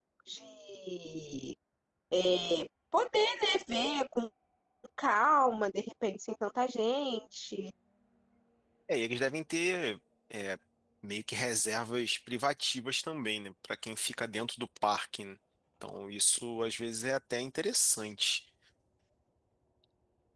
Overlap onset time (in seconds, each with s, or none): none